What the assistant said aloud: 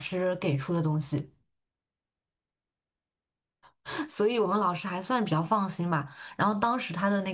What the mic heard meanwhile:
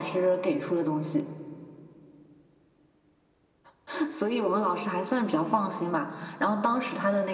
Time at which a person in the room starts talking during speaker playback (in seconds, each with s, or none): none